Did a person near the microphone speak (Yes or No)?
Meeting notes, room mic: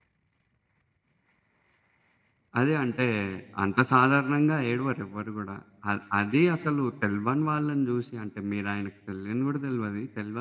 Yes